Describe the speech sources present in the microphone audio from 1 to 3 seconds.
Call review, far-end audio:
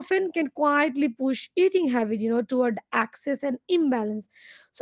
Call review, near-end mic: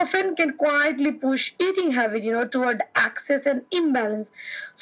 echo only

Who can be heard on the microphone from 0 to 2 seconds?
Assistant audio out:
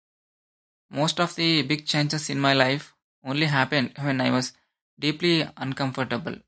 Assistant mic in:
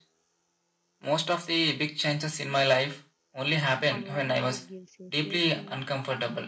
echo only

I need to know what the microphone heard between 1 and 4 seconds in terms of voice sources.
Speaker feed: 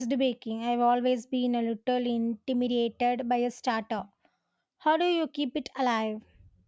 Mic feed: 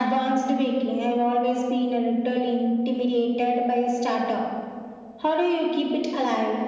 echo only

